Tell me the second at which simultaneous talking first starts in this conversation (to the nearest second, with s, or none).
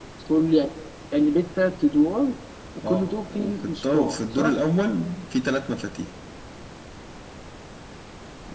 3 s